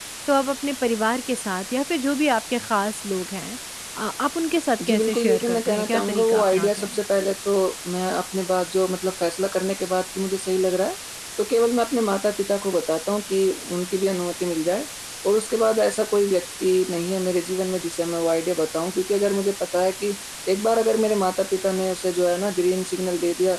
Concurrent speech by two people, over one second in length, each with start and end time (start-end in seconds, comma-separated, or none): 4.9-7.0